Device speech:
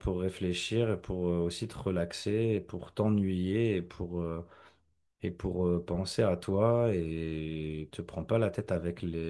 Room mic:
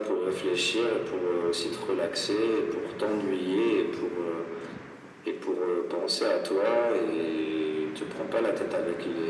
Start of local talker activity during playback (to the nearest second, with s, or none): none